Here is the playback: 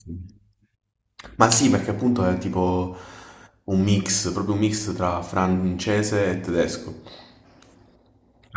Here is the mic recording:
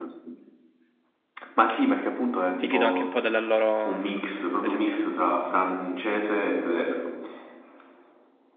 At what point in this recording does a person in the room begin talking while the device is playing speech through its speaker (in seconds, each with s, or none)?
2.6 s